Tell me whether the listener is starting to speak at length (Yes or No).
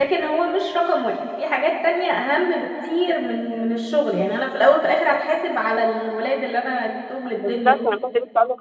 Yes